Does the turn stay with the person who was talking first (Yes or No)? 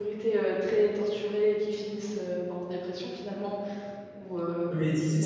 No